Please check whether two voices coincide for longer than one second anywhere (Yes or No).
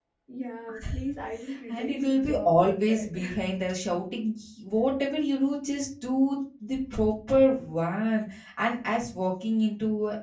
Yes